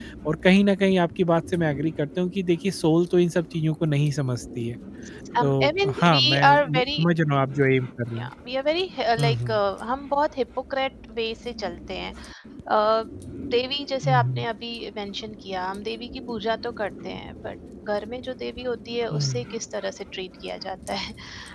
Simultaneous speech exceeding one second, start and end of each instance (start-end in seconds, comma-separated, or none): 5.4-7.0